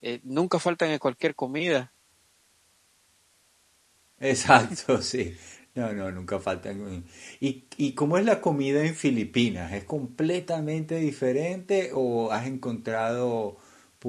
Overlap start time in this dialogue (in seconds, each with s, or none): none